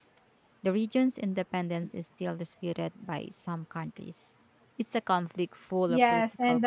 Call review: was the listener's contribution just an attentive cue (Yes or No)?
No